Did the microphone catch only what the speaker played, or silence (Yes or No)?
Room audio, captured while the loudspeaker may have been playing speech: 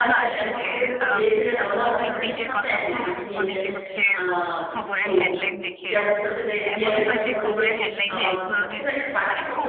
No